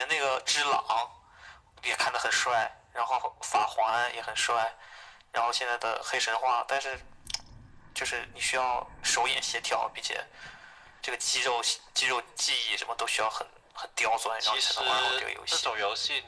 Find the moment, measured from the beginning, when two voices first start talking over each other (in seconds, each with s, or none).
14.4 s